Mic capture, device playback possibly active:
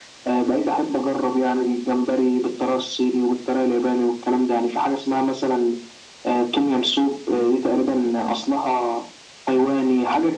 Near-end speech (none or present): none